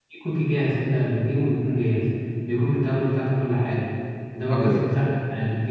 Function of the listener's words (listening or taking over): listening